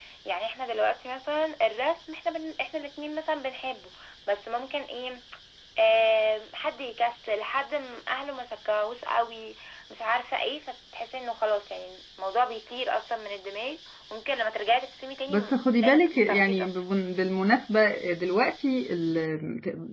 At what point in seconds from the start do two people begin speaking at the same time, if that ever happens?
15.3 s

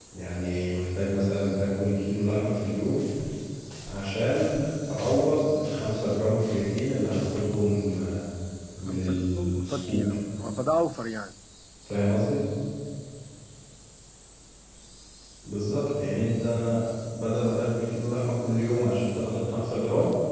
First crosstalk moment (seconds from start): 8.9 s

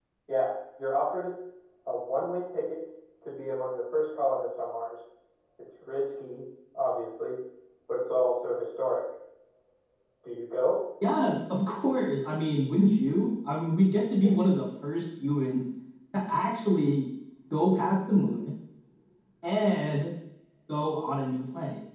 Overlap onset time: none

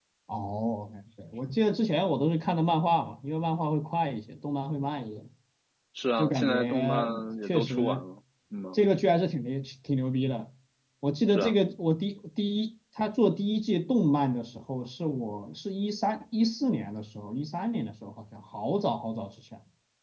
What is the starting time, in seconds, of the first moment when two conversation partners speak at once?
6.2 s

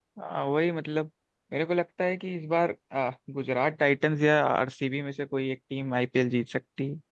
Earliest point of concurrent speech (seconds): none

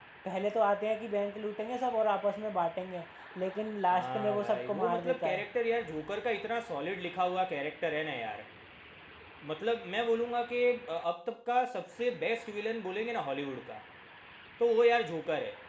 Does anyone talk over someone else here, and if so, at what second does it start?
3.9 s

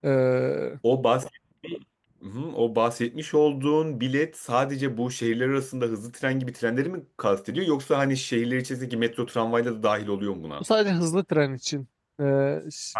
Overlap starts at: none

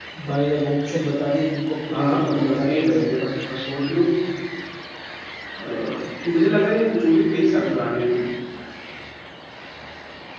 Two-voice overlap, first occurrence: 1.9 s

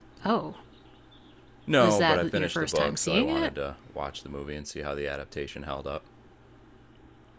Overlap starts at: 1.8 s

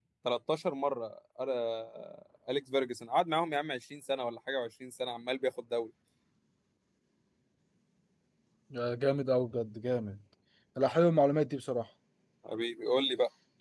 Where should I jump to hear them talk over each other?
none

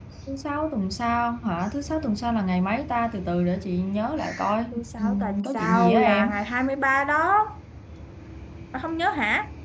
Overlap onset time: 4.7 s

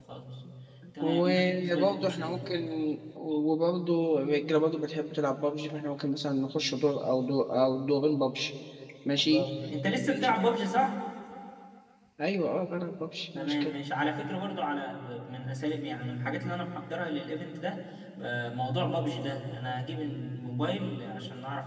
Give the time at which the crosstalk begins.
1.0 s

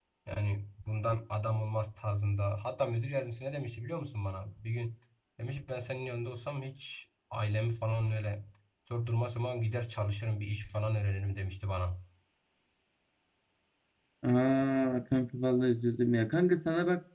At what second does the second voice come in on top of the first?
none

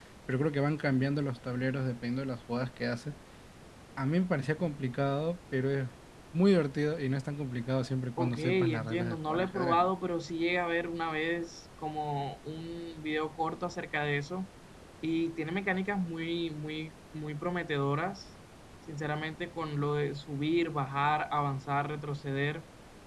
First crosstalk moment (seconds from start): 8.2 s

